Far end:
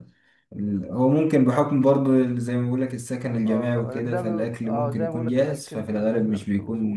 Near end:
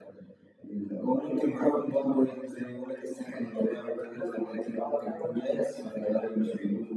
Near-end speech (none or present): none